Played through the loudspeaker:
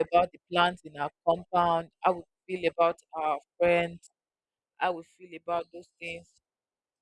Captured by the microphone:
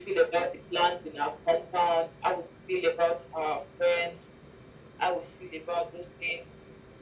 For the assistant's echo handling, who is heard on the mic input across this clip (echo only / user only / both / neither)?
echo only